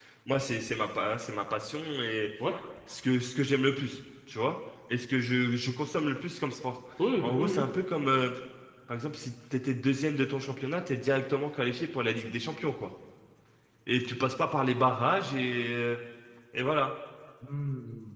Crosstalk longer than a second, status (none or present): none